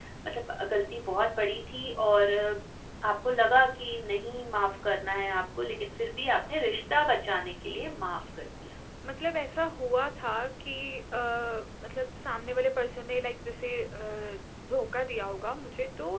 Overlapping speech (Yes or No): No